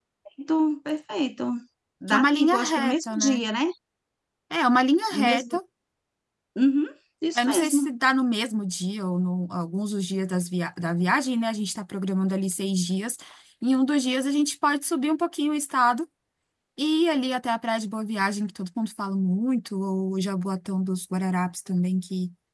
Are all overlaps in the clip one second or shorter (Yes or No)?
No